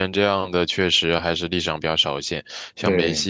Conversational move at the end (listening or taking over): listening